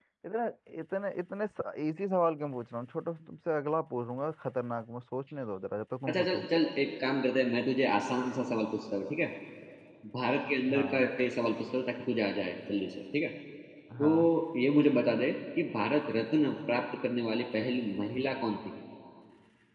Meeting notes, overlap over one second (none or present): none